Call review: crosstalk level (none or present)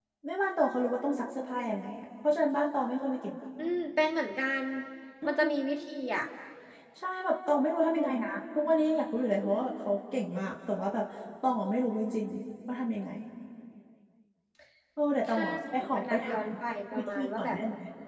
present